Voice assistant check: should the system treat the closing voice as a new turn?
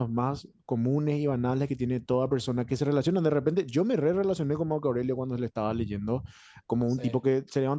No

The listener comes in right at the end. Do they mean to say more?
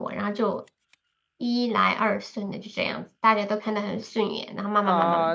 Yes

